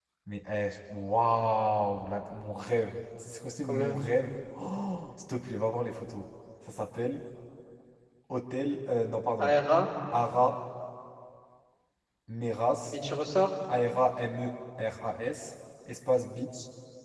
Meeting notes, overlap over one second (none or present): none